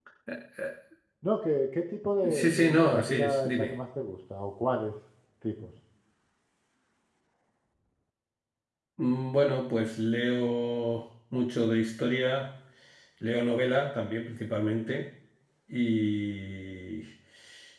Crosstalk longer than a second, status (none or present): present